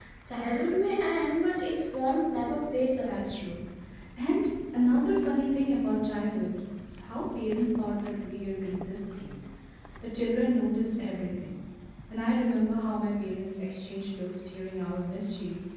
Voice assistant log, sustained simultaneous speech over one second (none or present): none